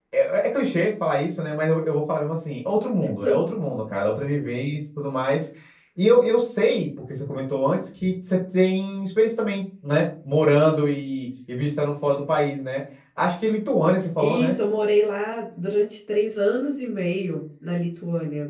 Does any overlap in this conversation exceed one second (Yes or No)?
No